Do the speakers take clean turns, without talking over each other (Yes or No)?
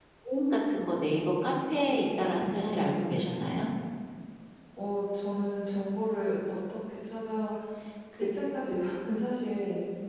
No